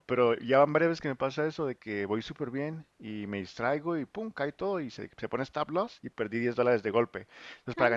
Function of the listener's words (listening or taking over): listening